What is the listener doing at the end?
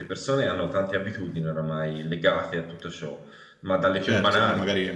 taking over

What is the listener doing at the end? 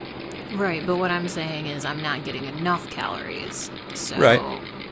taking over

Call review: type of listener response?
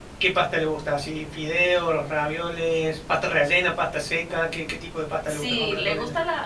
taking over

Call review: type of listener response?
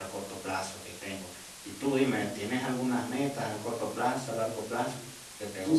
taking over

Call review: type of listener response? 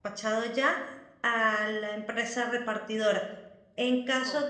listening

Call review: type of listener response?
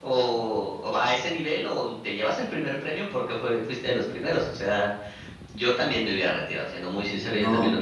listening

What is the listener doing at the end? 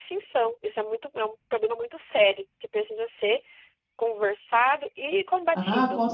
taking over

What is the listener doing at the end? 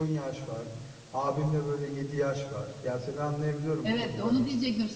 taking over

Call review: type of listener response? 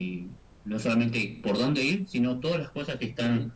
listening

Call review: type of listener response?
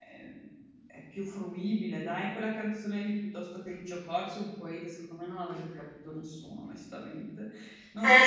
taking over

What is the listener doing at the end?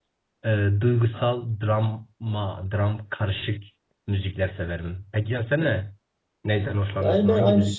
taking over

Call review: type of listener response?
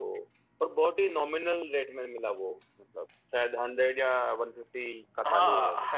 taking over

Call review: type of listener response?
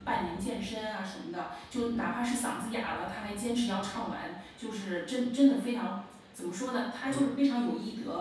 listening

